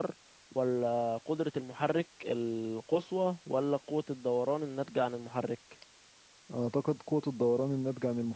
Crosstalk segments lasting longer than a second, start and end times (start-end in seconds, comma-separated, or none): none